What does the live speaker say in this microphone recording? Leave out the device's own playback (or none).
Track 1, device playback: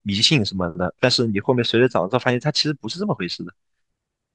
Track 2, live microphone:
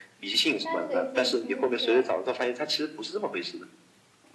但是可以减轻一些